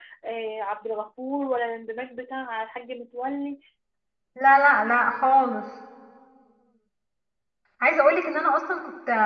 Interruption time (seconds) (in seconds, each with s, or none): none